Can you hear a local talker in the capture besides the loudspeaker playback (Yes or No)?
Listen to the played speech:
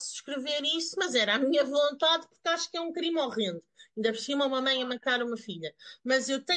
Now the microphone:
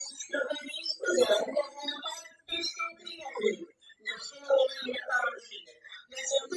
No